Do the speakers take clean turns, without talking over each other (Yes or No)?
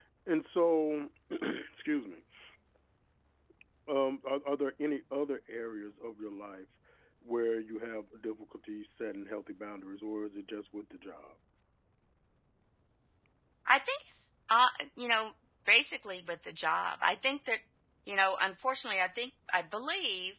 Yes